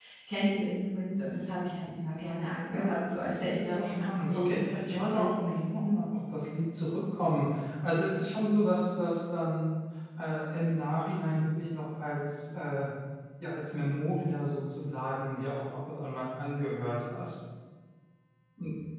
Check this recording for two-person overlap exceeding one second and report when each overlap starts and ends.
2.7-5.3

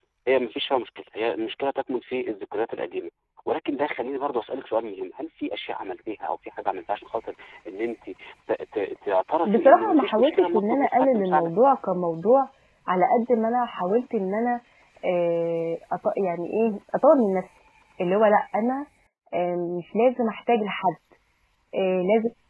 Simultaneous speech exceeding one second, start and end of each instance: 9.4-11.5

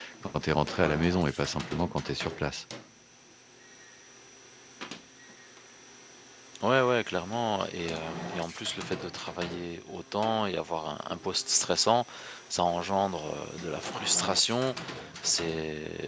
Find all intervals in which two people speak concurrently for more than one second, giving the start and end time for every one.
none

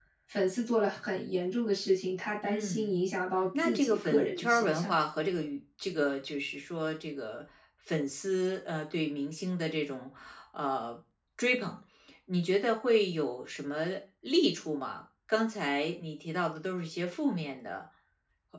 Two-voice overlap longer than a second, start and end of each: 3.6-4.9

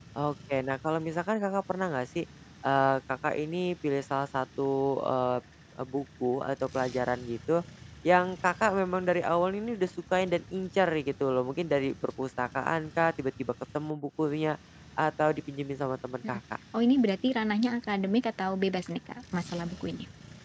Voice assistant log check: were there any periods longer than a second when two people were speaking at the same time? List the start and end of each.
none

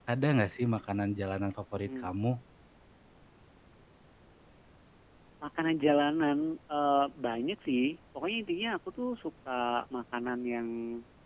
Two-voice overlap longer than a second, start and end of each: none

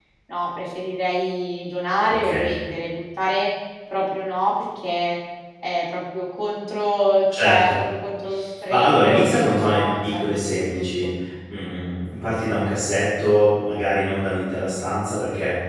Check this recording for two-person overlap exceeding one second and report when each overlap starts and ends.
8.7-11.1

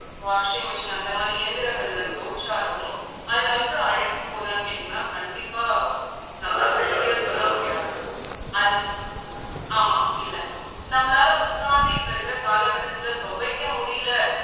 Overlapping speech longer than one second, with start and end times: 6.5-7.8

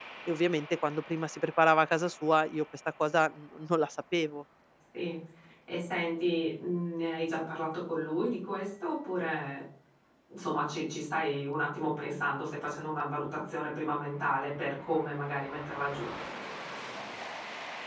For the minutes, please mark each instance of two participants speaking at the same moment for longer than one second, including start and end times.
none

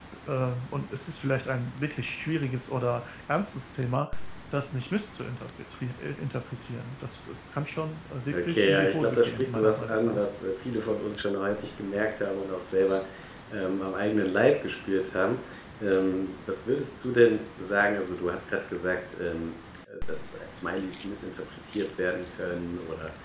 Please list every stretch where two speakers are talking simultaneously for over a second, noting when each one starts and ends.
8.3-10.2

